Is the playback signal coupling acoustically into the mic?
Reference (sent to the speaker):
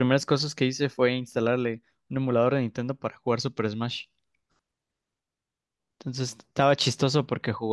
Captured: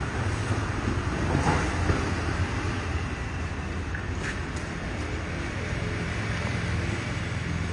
No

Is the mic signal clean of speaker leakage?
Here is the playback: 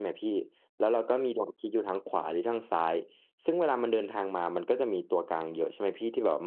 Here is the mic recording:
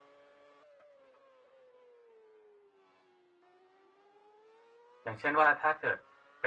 Yes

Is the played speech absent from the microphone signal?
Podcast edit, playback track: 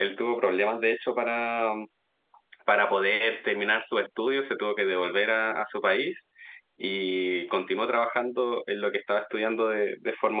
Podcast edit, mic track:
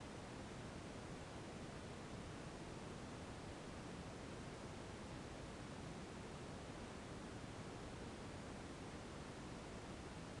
Yes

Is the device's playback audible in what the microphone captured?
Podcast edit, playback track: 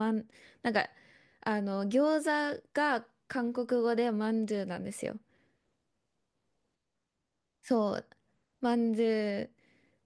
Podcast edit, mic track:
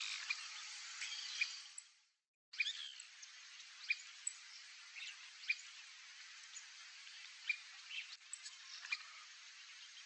No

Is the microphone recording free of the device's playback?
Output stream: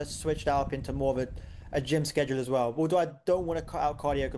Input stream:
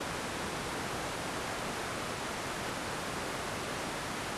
Yes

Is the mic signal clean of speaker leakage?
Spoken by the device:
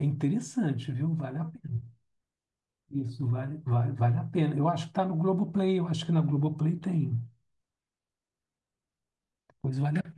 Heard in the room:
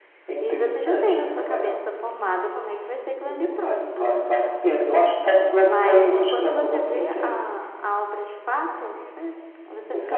No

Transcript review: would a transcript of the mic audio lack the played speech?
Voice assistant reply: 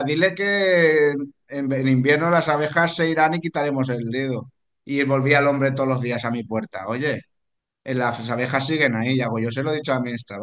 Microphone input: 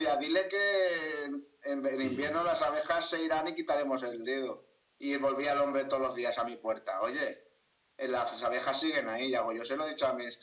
No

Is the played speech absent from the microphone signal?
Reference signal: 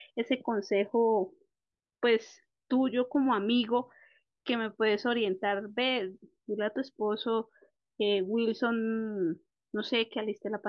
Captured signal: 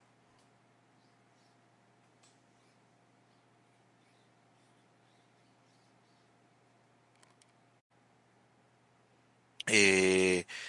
Yes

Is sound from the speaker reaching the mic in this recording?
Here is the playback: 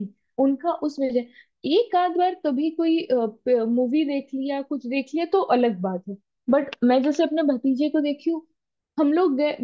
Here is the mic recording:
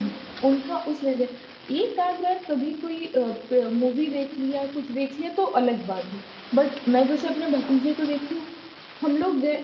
Yes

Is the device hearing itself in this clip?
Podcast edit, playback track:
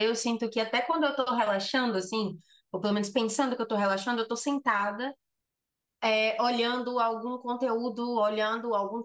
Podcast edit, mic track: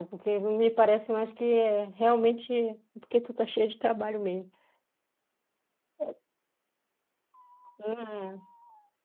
No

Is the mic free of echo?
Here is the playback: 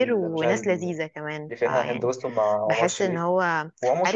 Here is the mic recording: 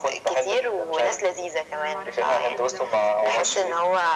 No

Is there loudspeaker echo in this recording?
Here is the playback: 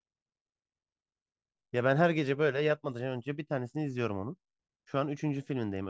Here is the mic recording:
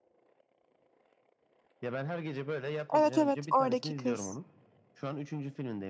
Yes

